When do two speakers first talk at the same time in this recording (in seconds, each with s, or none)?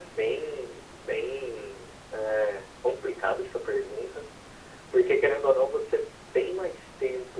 none